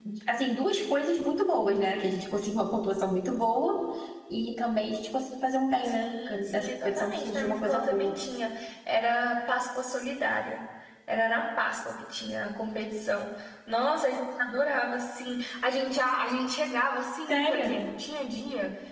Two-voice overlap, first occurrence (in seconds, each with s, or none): 5.8 s